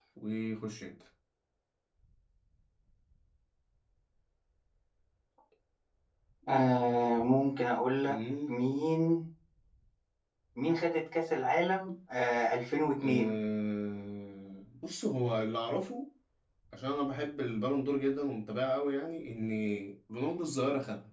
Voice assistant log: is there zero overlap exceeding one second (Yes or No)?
Yes